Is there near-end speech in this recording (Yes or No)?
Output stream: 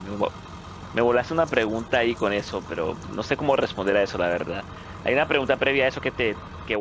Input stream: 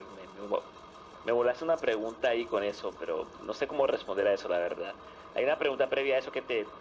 No